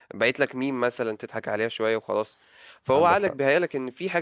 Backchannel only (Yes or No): Yes